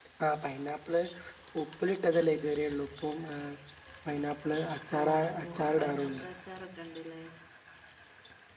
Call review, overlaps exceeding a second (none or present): present